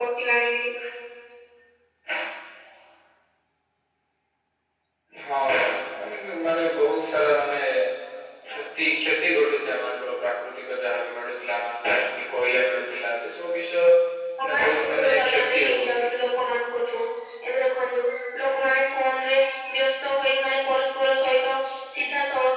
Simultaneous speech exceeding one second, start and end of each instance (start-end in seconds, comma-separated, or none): 14.4-16.0